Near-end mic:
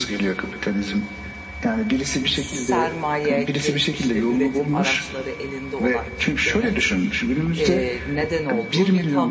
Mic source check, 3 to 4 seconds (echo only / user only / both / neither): both